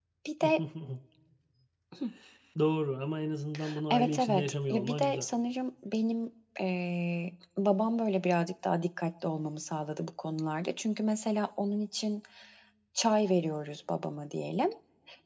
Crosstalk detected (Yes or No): Yes